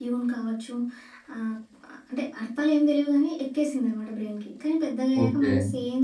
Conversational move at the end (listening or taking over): listening